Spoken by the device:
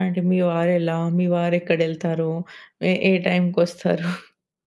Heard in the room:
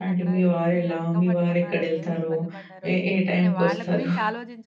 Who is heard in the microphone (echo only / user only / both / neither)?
both